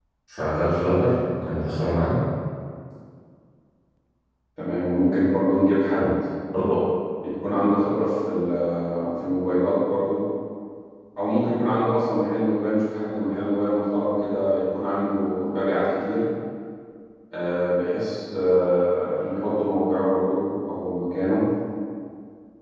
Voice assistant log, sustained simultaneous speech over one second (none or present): none